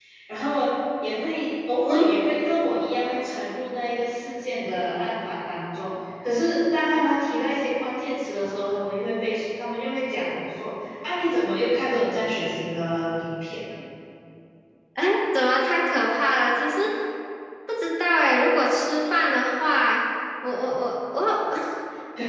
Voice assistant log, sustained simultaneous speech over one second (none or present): none